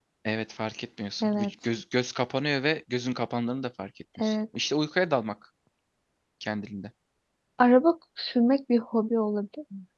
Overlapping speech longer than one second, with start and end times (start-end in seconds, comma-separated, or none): none